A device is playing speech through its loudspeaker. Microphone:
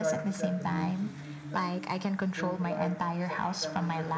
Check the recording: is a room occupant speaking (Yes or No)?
Yes